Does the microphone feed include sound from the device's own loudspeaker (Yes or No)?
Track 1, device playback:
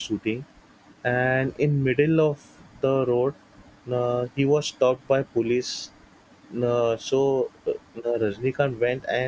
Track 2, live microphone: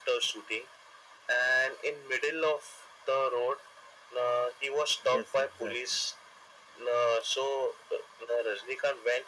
Yes